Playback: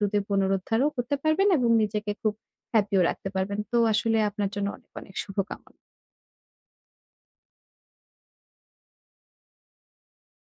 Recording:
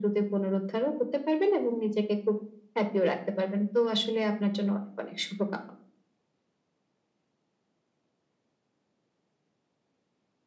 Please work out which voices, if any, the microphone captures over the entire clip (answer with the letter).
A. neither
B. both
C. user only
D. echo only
D